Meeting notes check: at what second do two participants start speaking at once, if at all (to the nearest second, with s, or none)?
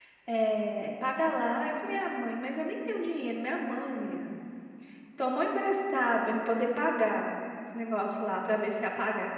none